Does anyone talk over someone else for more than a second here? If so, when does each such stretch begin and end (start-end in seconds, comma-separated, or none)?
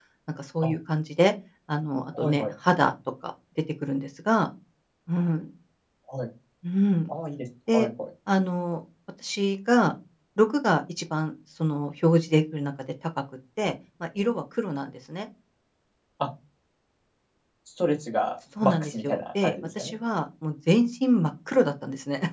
18.6-19.9